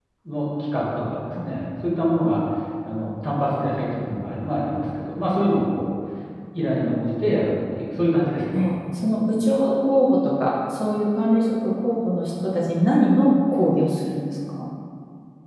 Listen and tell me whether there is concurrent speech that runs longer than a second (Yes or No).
No